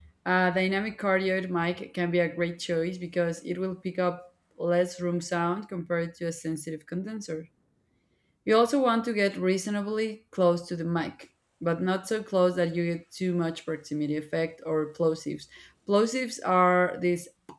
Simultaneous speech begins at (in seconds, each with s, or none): none